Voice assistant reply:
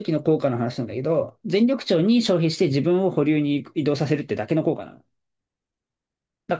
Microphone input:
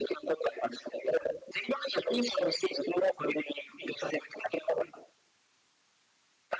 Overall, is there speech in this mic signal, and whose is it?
echo only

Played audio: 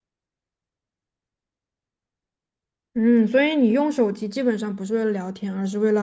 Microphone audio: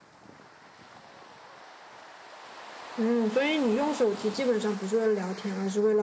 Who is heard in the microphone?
echo only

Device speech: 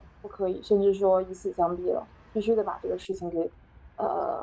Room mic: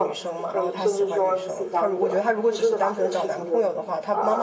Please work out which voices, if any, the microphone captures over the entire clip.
both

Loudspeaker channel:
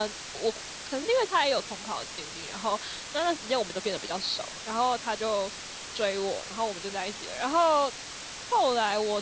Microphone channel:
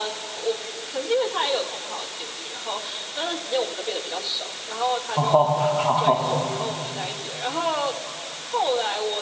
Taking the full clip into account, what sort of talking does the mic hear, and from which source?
both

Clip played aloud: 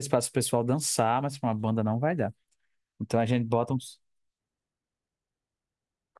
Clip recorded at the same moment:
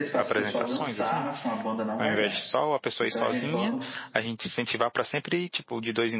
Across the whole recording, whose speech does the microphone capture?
both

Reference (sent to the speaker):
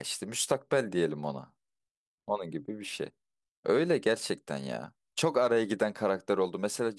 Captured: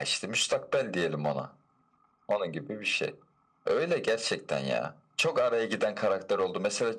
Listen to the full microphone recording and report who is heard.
echo only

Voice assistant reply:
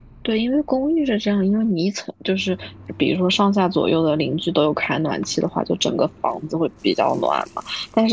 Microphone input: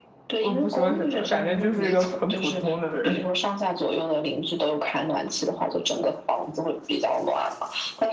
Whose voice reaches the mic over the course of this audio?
both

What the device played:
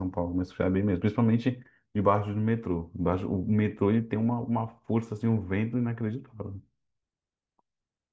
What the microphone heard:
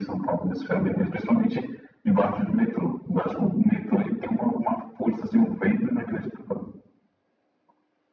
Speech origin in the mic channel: echo only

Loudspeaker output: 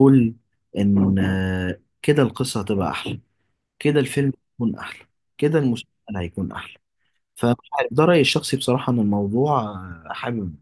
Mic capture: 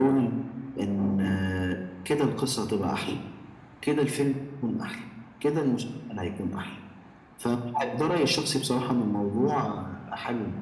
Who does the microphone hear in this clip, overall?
echo only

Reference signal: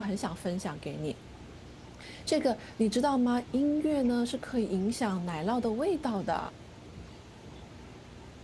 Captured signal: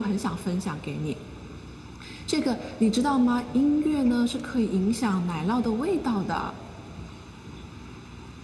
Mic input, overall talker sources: echo only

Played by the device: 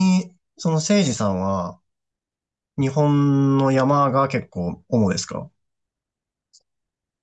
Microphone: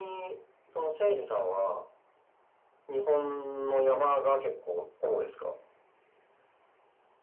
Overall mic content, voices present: echo only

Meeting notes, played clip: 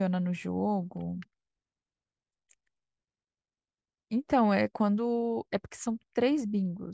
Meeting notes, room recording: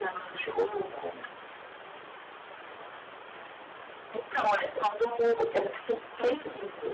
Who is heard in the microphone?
echo only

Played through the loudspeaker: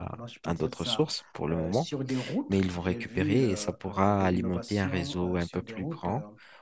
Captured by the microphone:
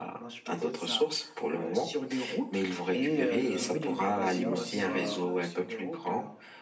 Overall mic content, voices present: both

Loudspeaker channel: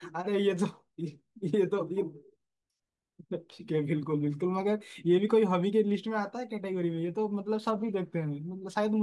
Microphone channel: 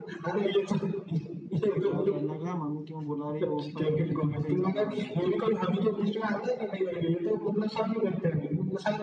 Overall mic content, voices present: both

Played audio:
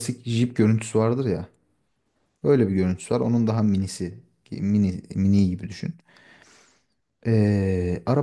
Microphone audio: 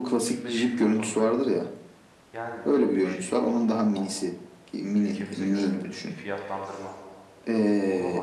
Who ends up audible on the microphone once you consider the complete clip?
both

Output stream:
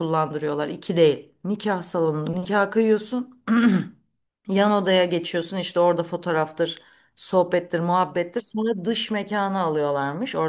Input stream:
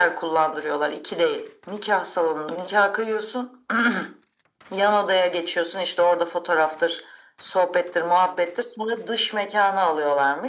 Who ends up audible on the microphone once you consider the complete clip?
echo only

